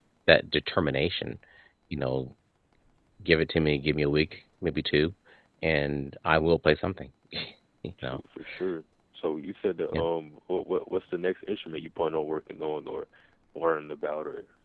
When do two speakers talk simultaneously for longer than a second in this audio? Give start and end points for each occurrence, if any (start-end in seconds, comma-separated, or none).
none